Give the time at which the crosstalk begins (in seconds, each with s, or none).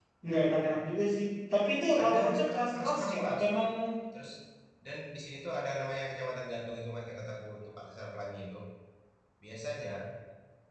2.0 s